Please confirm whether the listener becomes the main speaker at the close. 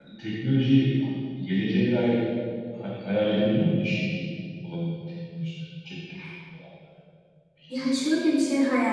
Yes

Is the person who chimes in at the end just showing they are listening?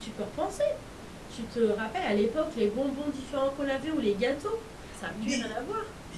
No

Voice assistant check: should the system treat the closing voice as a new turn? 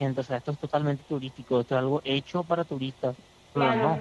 No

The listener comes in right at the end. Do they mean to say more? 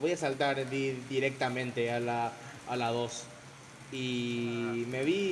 No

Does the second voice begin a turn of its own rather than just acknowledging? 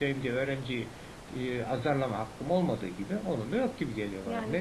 Yes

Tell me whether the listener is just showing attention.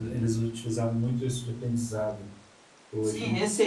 No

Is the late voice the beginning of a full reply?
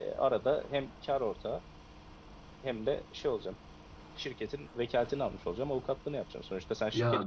No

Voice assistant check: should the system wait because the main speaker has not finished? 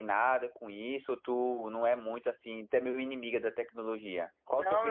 No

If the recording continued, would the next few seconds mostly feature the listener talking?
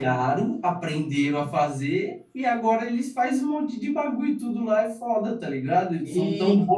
No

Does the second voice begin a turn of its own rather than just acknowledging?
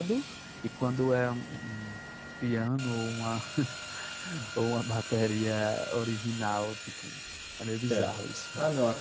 Yes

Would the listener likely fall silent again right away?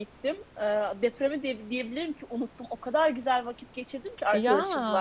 Yes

